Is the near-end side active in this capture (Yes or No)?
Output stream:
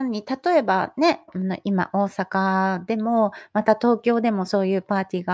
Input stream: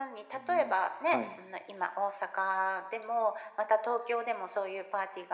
Yes